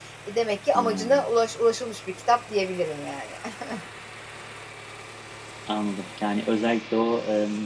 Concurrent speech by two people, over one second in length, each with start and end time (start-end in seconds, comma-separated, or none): none